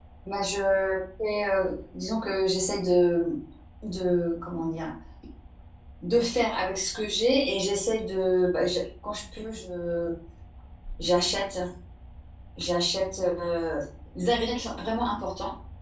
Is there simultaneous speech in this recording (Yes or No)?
No